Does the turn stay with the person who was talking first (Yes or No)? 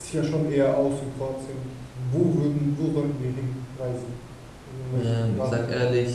No